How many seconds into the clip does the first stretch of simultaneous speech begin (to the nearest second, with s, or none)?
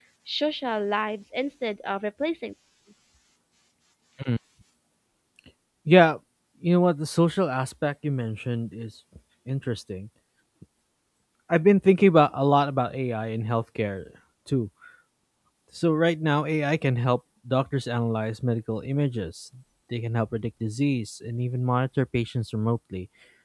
none